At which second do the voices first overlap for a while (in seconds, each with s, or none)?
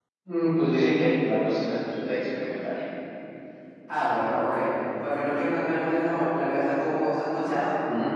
none